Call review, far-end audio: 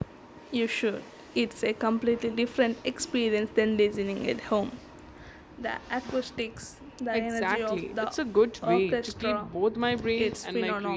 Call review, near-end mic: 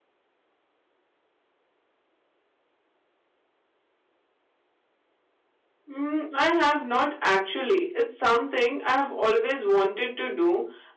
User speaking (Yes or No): Yes